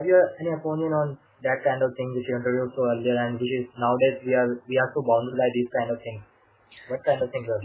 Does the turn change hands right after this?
Yes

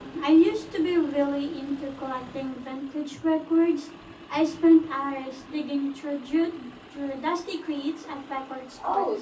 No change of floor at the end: No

